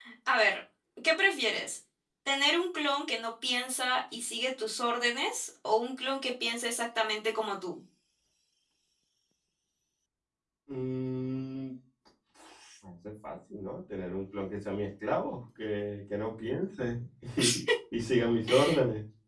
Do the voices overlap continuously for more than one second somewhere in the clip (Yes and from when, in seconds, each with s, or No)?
No